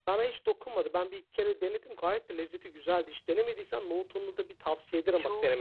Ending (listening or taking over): taking over